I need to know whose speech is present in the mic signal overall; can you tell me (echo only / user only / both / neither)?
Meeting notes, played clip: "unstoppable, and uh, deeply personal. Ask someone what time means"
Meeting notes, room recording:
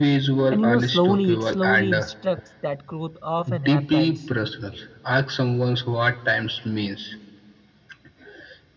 both